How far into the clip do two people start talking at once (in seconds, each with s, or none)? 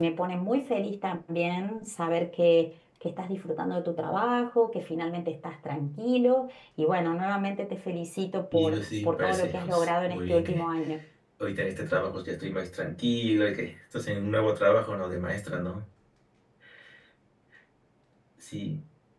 8.5 s